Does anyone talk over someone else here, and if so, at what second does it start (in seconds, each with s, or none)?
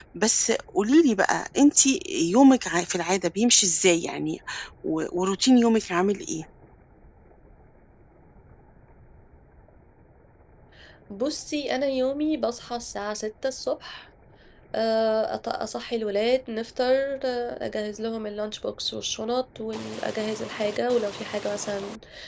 none